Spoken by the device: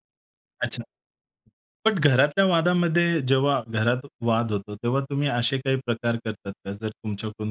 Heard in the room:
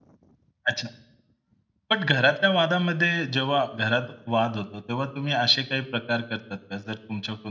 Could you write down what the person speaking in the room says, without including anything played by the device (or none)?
none